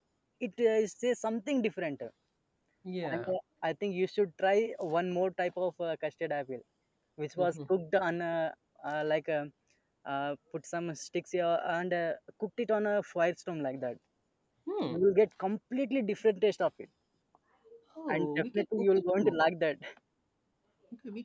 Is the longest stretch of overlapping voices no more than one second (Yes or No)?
No